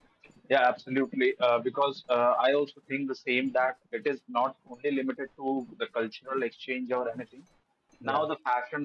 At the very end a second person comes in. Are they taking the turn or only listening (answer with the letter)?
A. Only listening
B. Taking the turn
A